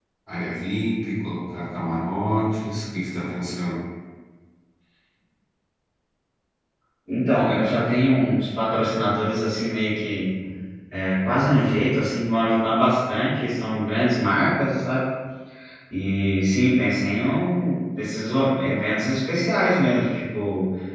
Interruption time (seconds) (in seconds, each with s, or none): none